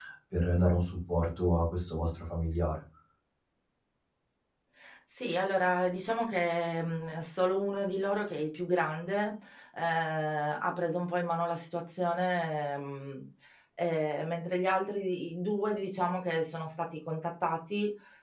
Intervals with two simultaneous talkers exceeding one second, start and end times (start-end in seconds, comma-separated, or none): none